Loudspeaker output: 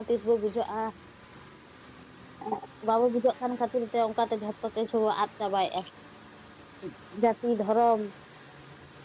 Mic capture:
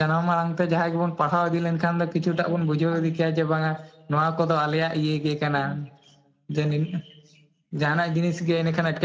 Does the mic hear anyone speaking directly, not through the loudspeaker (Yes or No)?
Yes